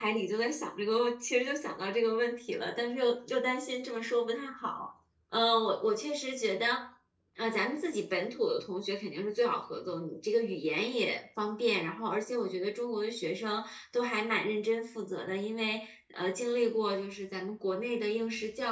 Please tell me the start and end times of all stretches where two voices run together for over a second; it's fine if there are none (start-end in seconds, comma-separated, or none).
none